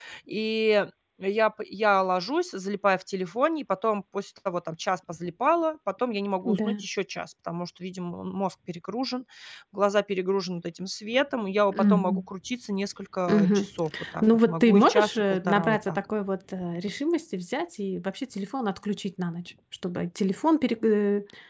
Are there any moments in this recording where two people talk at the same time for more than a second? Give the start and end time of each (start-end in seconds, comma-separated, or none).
14.2-16.0